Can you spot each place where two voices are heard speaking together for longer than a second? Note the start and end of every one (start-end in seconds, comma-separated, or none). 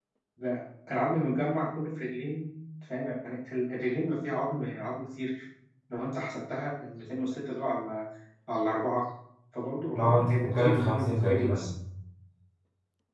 9.9-11.7